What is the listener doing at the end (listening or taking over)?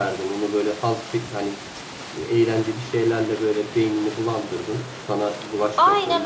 taking over